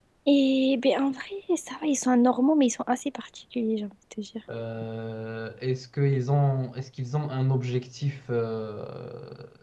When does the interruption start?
none

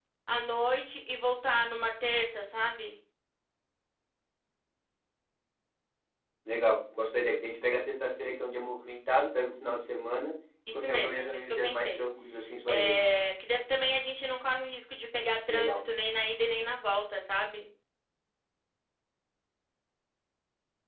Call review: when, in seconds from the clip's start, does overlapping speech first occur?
10.7 s

